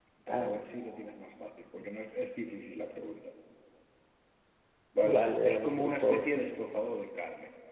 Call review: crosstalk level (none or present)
present